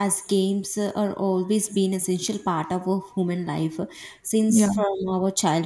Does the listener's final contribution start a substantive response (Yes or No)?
No